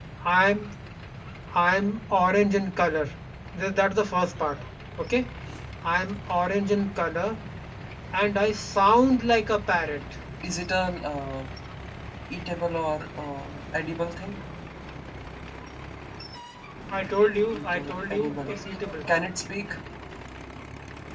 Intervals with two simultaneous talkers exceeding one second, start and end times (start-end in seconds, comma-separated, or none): 17.5-18.9